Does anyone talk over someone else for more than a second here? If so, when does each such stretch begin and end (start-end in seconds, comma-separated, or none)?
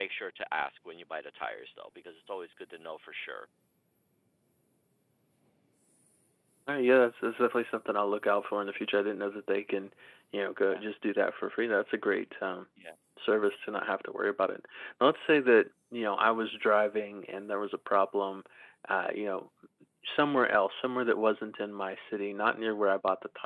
none